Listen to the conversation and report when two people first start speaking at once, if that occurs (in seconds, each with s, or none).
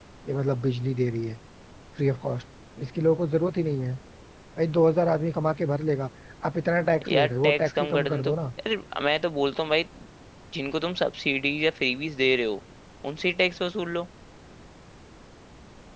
7.1 s